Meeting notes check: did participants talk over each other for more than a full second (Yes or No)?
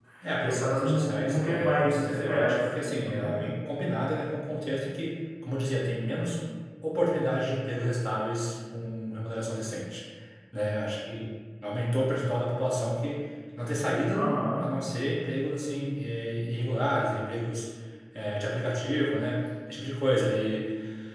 Yes